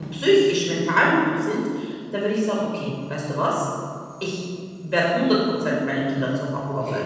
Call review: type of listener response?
taking over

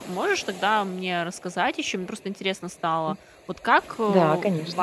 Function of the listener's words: listening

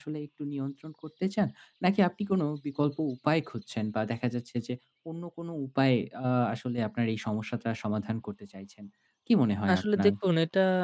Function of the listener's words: taking over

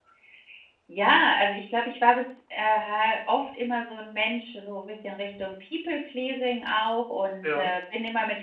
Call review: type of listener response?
listening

